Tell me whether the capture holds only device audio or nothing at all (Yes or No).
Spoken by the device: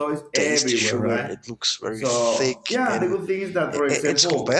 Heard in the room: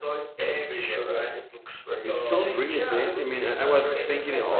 No